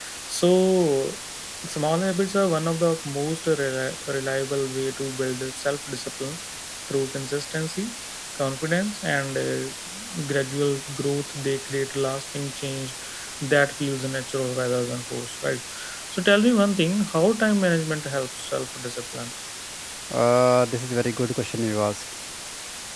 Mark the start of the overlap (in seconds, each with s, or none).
none